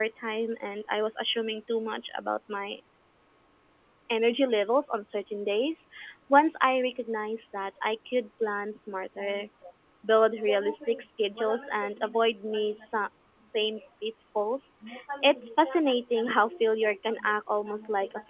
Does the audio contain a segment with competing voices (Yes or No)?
No